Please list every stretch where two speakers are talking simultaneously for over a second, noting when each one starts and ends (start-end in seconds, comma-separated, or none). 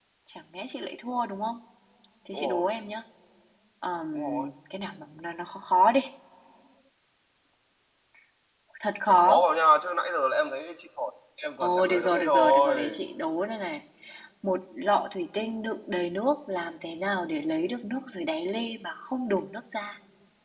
11.6-13.0